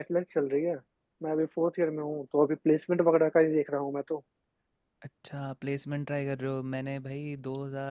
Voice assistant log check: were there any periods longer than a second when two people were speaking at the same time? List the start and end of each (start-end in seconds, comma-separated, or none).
none